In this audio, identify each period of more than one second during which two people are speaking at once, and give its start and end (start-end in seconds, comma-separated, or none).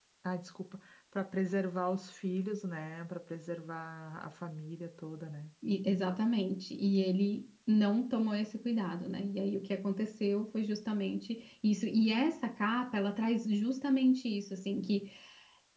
none